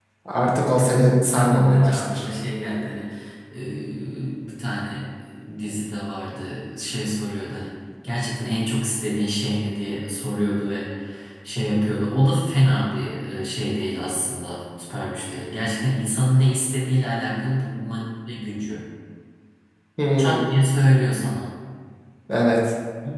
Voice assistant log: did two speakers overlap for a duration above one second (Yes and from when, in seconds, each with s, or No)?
Yes, from 0.8 s